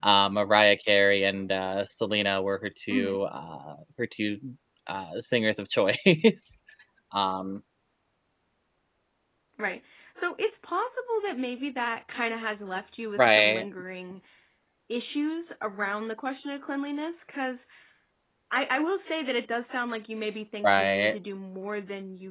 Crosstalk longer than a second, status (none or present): none